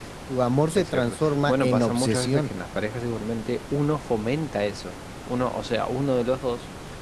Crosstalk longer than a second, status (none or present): present